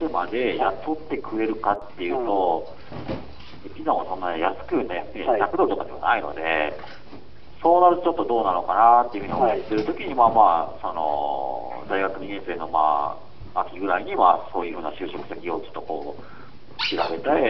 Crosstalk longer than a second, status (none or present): none